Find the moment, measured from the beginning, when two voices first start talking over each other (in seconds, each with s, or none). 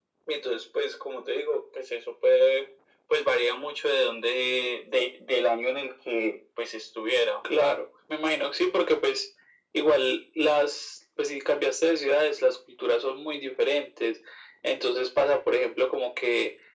none